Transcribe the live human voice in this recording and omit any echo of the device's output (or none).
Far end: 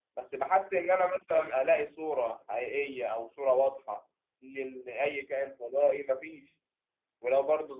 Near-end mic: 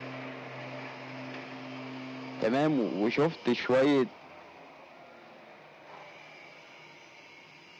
تمام وشفت شويه